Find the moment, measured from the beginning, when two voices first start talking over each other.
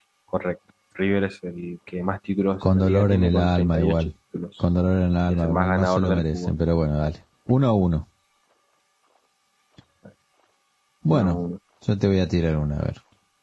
2.6 s

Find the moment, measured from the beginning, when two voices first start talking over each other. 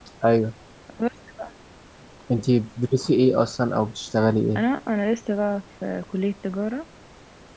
none

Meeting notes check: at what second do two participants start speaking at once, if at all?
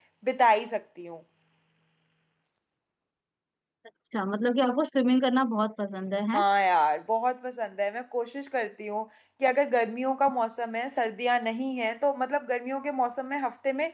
none

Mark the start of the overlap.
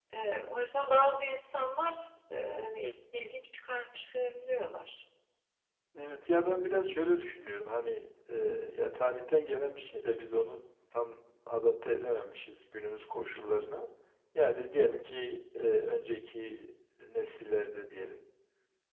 none

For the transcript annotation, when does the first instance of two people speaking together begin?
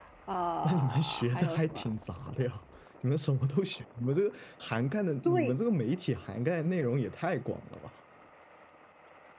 0.6 s

